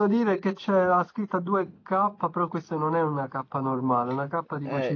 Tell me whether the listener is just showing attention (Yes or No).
No